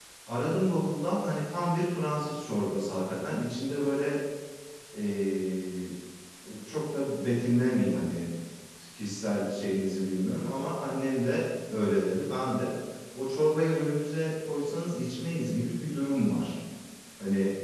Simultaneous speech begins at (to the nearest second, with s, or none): none